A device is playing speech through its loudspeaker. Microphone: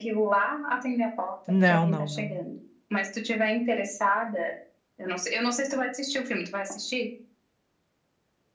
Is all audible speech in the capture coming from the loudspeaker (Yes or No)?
No